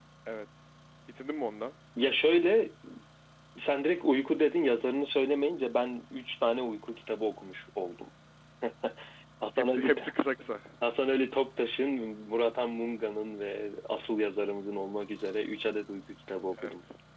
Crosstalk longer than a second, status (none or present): none